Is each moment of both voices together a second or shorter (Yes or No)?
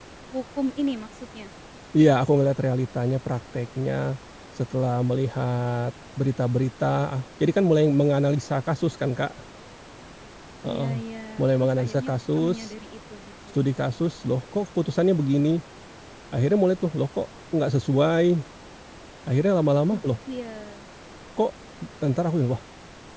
No